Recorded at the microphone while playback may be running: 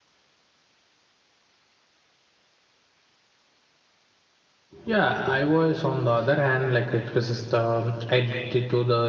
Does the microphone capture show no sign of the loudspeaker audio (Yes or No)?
Yes